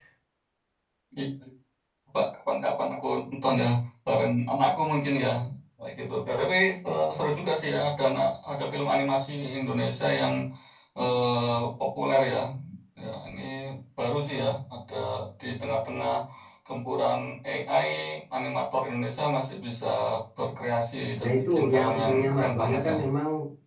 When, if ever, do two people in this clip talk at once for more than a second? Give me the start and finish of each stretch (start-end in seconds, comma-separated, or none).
21.2-22.9